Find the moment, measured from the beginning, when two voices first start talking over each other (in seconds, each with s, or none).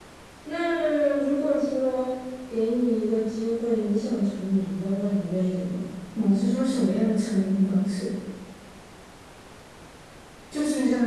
none